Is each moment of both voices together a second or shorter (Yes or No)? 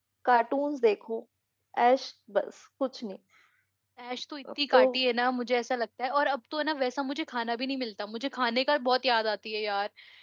Yes